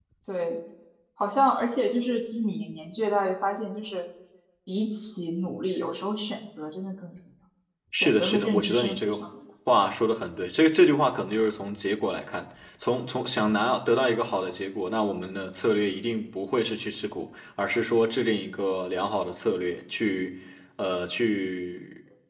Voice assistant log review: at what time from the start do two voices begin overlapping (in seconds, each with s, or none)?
7.9 s